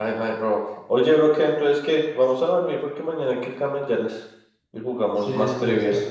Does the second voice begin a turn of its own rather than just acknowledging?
Yes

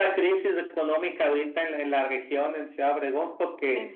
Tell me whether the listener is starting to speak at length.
No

